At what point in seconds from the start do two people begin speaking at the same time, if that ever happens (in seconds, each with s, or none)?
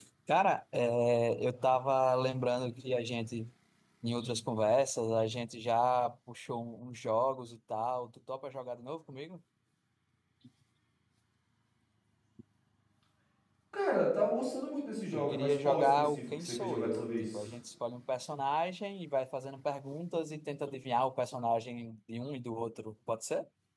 15.1 s